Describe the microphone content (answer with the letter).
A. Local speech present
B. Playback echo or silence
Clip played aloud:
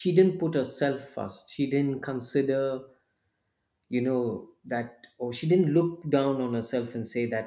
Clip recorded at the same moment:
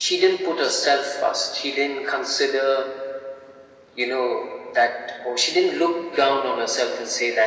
B